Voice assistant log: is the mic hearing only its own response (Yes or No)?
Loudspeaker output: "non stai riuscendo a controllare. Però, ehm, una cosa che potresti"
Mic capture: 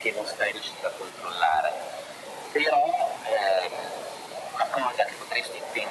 Yes